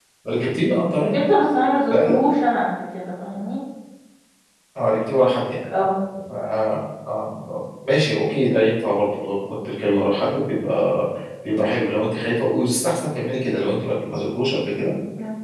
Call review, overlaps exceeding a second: none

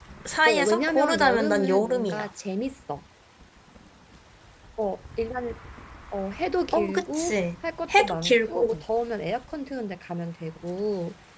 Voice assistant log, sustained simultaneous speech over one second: present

